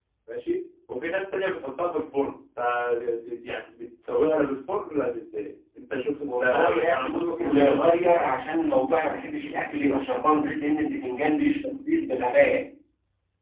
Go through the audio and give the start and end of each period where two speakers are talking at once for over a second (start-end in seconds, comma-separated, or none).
6.2-8.3